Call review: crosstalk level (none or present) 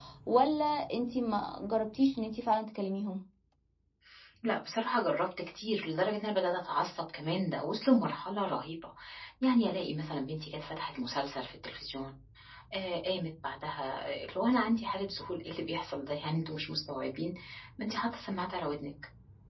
none